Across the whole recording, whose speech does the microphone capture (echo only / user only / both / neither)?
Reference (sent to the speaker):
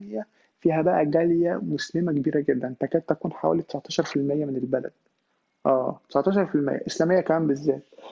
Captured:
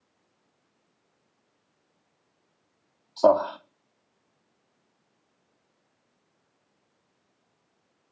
user only